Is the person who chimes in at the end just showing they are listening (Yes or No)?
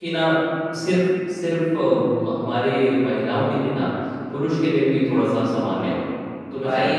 No